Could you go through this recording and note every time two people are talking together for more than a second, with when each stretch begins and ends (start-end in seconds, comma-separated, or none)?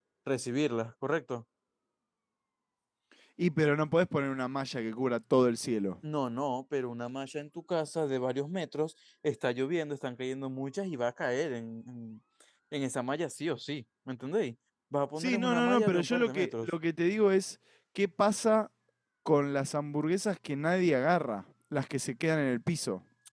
15.2-16.7